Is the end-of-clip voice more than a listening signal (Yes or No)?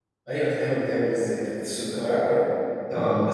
No